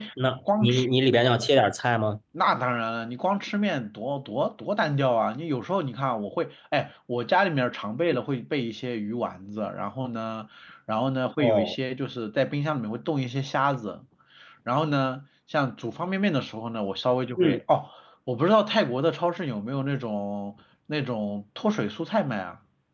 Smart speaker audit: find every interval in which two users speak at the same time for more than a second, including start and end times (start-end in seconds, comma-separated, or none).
none